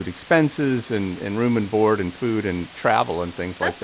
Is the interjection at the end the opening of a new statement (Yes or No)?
Yes